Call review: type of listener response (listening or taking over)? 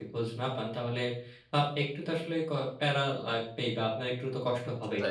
listening